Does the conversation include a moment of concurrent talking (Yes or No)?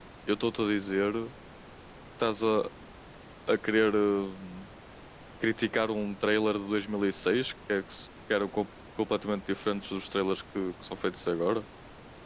No